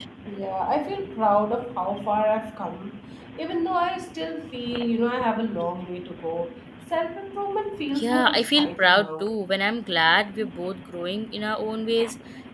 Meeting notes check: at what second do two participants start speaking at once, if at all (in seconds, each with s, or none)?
7.9 s